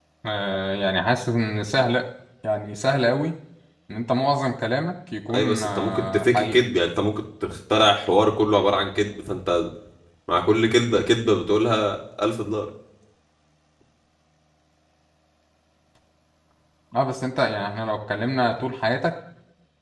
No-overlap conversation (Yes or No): No